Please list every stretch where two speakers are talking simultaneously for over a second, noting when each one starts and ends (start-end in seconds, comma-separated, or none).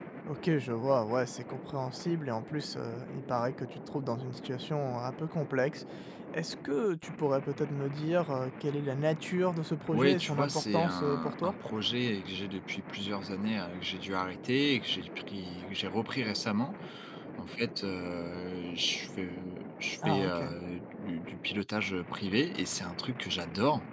9.9-11.5